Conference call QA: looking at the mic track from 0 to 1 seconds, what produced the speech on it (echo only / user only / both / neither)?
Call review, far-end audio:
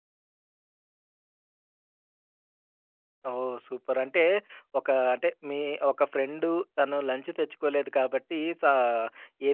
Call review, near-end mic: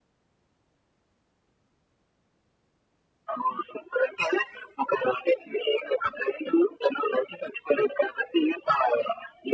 neither